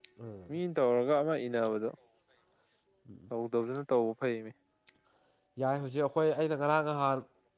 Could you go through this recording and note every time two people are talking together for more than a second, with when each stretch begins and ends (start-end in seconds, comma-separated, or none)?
none